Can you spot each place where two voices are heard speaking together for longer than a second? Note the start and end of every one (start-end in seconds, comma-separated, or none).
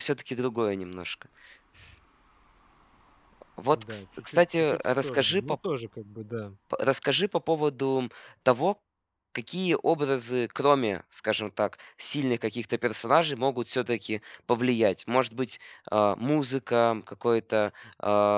3.7-5.6